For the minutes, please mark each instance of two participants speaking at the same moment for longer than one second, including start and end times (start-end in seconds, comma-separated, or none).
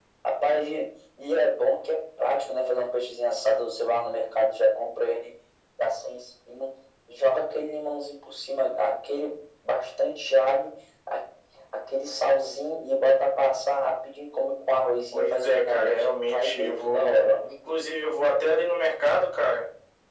15.1-17.4